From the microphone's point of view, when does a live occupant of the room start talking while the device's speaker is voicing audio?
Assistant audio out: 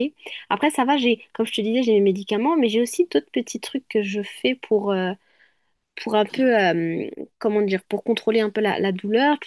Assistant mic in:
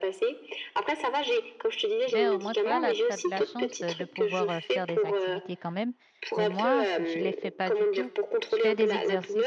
2 s

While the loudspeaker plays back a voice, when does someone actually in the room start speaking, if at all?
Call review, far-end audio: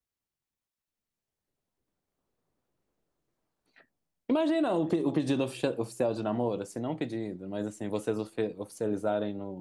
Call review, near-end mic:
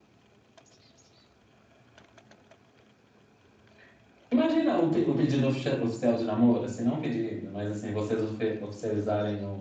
none

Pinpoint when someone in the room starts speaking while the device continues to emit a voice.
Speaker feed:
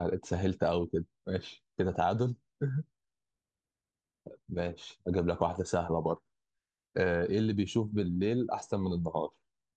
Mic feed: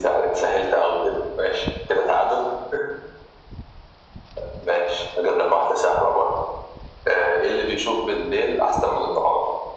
none

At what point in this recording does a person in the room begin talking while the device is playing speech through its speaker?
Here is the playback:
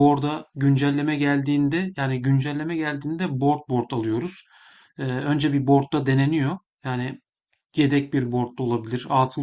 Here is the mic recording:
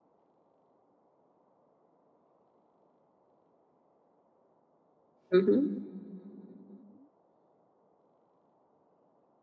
5 s

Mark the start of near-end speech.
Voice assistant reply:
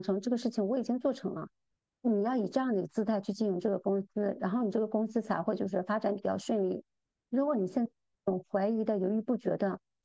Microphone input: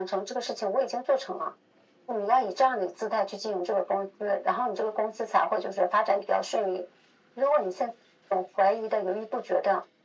none

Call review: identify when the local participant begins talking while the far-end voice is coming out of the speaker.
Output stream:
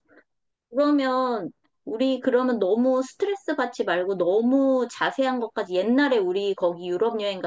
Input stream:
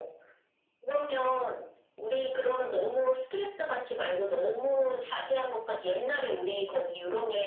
none

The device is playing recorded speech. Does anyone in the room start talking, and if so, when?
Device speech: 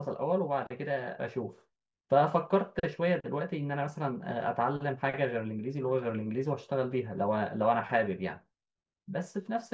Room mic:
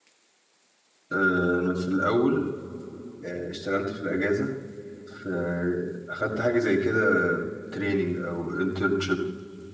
1 s

